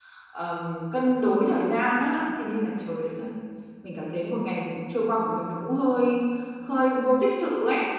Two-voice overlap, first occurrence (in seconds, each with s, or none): none